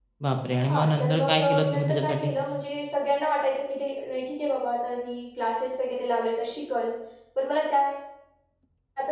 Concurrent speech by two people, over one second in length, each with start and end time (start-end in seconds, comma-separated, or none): 0.6-2.3